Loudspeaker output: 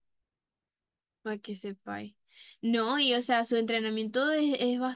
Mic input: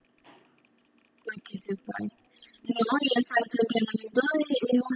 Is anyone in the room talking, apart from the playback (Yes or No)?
No